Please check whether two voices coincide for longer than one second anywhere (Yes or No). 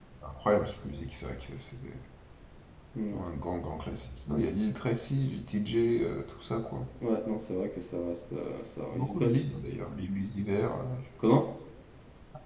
No